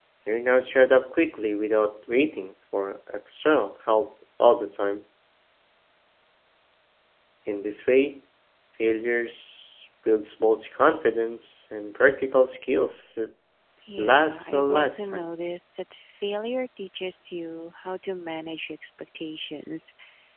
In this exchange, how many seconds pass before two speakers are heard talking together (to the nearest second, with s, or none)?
14 s